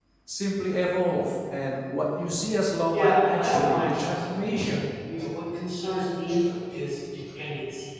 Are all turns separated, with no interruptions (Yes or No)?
No